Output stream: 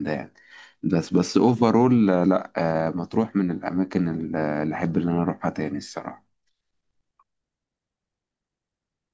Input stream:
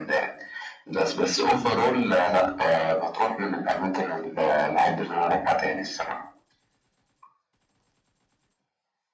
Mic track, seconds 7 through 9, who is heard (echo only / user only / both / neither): neither